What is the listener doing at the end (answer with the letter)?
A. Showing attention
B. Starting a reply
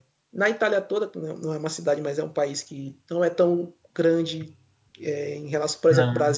A